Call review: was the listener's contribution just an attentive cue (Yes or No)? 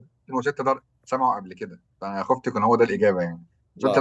Yes